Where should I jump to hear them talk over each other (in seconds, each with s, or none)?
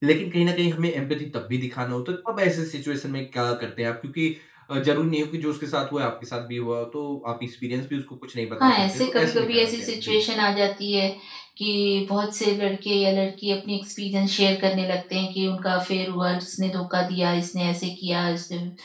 8.6 s